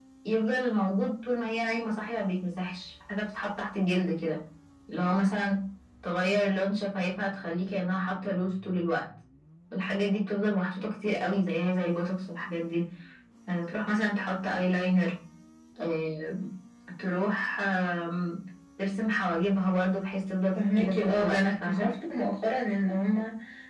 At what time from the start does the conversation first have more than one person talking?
20.6 s

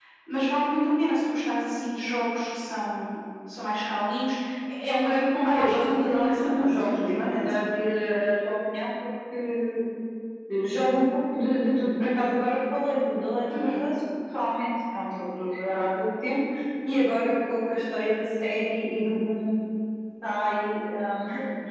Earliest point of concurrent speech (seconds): 5.4 s

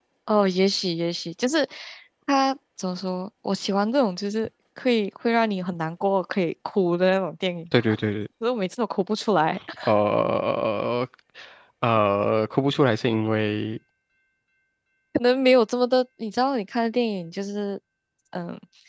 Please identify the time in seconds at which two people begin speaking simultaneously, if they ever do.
none

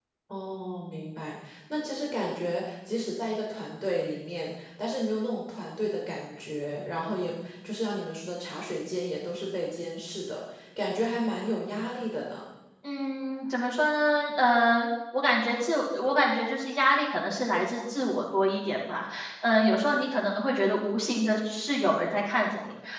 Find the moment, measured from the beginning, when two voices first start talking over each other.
none

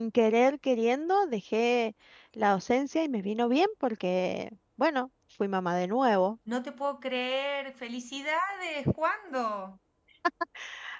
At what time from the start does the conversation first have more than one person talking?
none

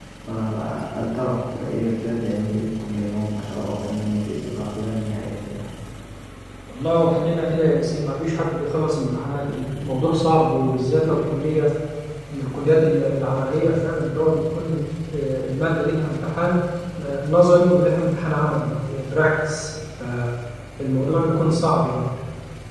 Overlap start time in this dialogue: none

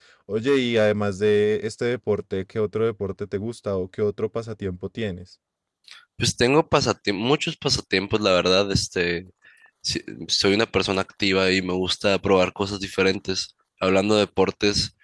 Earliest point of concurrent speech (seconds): none

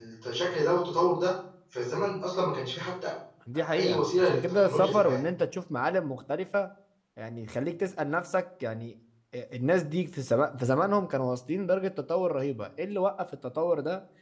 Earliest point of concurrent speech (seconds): 3.8 s

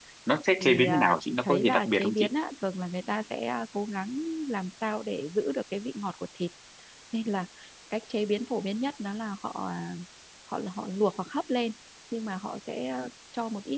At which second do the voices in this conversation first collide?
0.6 s

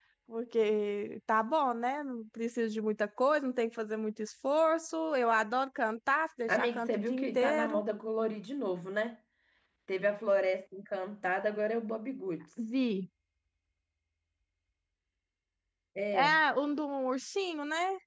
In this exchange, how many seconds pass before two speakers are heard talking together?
6.5 s

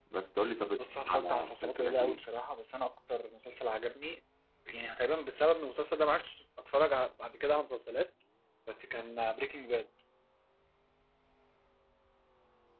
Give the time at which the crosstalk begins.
0.8 s

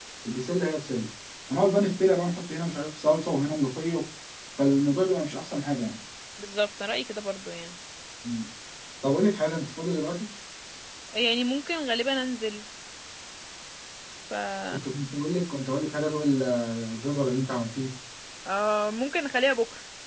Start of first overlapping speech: none

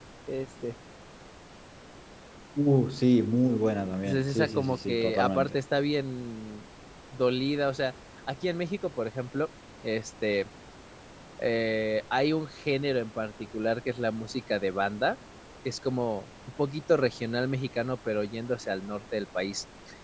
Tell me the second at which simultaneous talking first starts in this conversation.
4.0 s

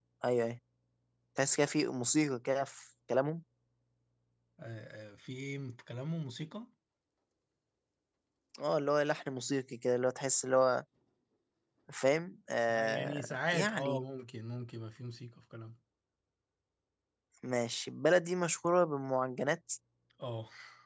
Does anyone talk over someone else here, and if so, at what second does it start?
12.6 s

